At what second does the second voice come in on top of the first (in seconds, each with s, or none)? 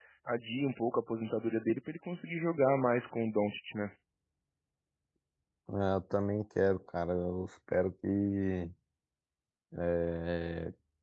none